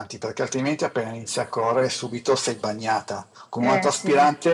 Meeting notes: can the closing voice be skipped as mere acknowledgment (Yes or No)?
Yes